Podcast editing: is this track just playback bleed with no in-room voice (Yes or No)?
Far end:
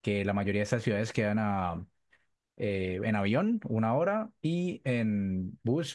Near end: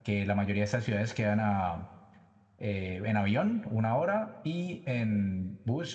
Yes